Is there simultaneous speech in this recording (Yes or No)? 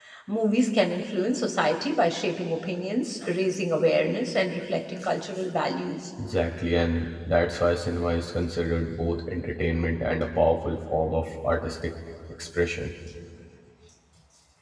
No